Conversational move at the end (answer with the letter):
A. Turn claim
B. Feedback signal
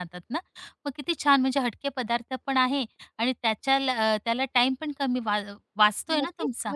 A